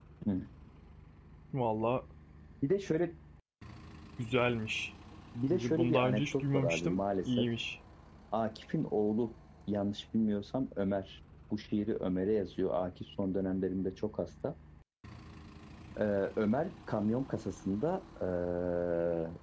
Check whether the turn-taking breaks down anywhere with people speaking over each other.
Yes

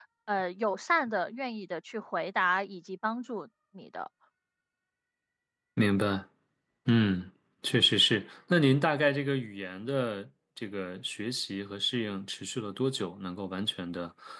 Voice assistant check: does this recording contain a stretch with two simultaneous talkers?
No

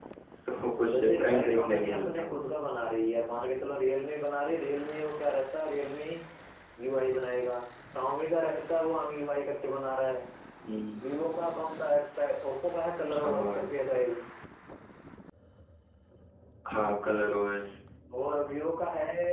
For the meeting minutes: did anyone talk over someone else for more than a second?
Yes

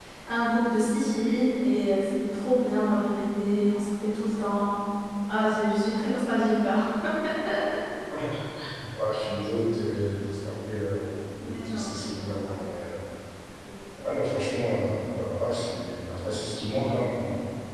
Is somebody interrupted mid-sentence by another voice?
Yes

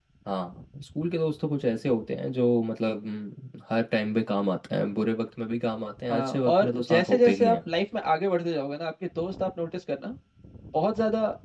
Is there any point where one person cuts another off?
Yes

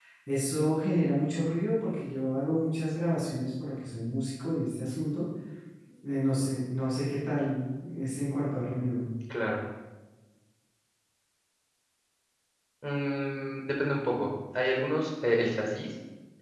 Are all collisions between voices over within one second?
Yes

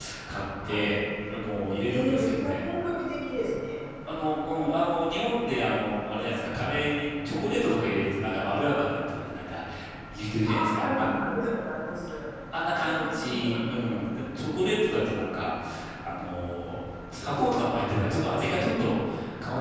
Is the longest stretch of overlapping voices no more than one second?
No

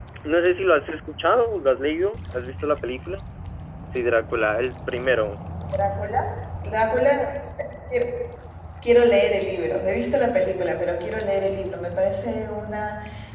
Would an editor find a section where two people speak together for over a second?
No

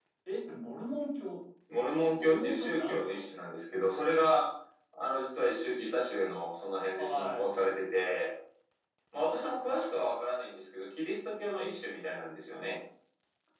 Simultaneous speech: Yes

